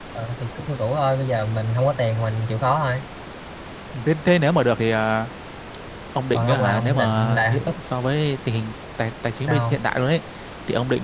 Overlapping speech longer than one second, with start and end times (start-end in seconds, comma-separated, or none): 6.3-7.7